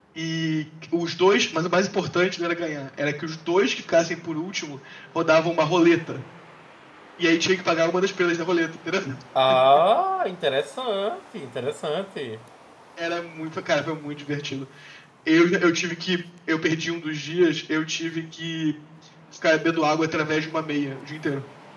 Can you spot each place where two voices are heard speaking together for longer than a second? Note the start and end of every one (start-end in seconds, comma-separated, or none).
none